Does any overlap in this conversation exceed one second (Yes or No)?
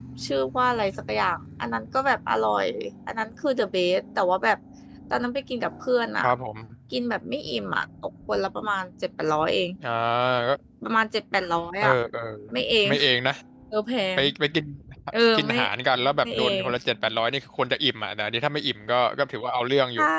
No